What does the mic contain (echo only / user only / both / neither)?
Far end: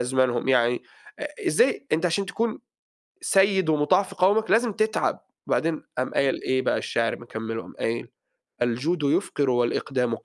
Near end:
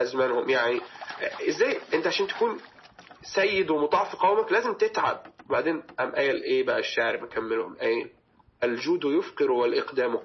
echo only